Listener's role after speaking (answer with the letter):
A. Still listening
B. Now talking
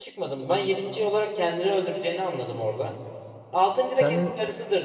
A